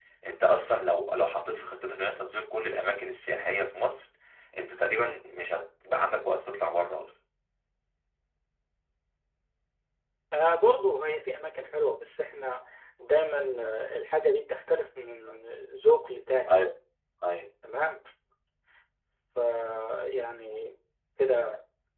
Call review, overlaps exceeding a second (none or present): none